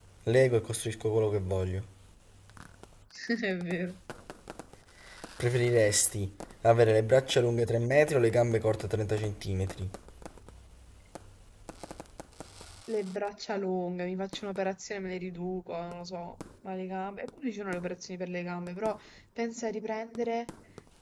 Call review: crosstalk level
none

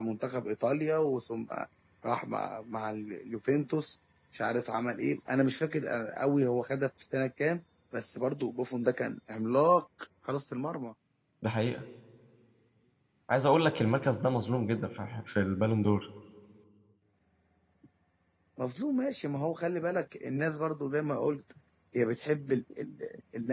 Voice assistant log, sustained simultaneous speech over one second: none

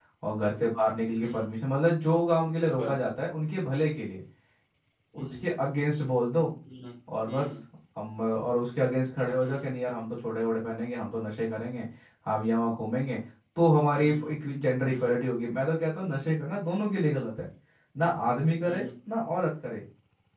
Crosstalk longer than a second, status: none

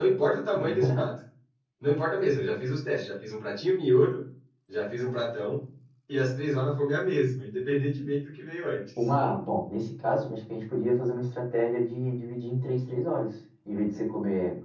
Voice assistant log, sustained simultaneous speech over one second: none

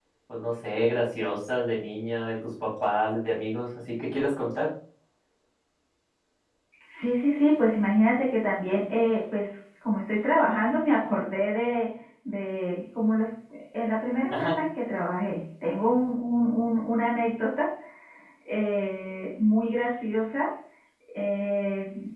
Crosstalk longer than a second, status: none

